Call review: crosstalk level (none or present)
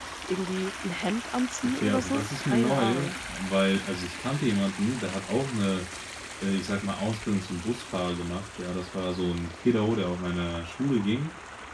present